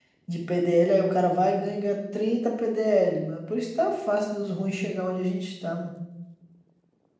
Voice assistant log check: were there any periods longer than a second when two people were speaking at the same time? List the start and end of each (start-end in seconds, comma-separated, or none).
none